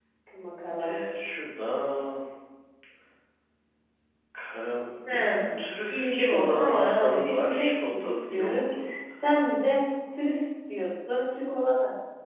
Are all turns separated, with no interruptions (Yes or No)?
No